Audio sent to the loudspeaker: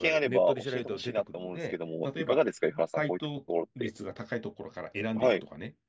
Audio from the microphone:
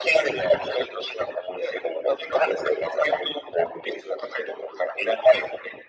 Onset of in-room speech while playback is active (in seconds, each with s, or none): none